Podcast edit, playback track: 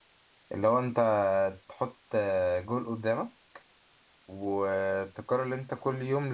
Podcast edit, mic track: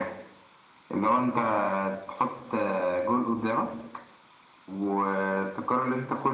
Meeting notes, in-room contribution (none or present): none